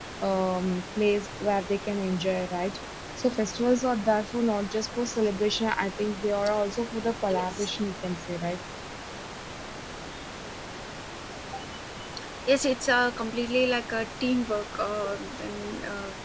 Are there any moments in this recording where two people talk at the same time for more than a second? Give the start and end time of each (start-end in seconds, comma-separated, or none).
none